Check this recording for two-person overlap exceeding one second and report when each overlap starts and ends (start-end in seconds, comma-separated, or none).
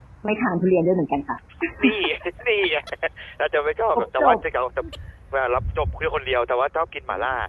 none